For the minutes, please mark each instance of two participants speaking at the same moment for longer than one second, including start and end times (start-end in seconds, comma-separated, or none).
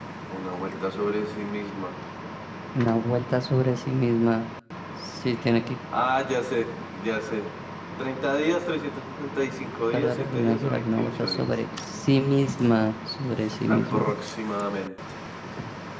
9.9-11.5